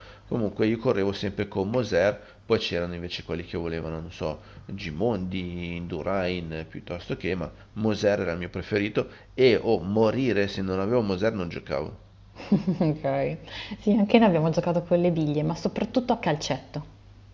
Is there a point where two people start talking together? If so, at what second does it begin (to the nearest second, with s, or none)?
none